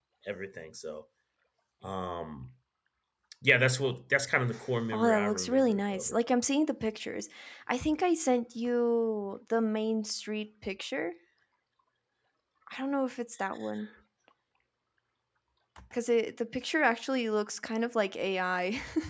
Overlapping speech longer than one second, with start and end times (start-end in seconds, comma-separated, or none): 4.9-6.2